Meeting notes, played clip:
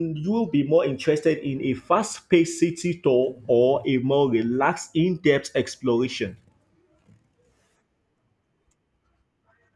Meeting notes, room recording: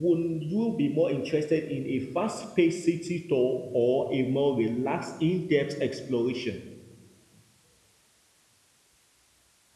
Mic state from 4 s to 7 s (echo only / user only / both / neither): echo only